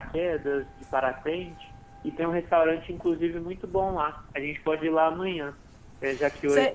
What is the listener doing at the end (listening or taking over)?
listening